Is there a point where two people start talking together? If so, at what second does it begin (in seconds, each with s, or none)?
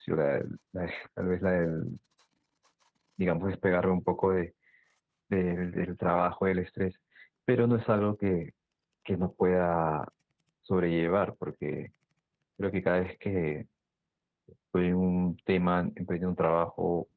none